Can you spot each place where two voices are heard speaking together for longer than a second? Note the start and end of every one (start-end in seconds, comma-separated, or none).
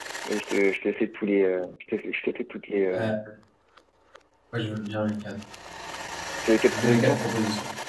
none